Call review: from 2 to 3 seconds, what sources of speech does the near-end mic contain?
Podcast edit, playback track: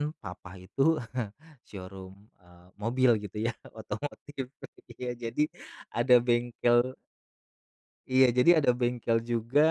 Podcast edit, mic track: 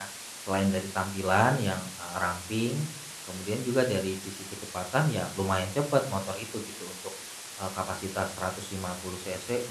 user only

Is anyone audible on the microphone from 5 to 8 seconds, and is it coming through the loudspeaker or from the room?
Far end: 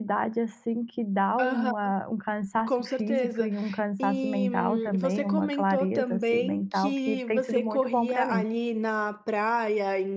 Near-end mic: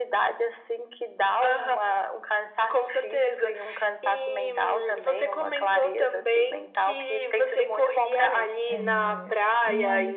echo only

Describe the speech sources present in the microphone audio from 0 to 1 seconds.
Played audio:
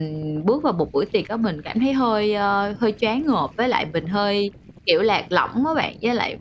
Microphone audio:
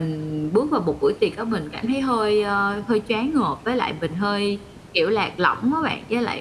echo only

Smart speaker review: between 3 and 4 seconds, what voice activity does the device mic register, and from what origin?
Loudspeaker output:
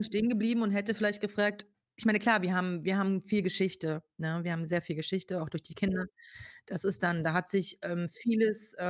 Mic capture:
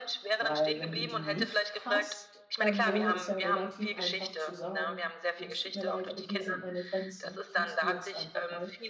both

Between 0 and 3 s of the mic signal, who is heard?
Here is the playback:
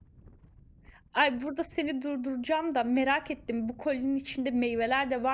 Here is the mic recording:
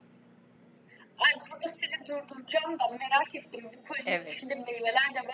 echo only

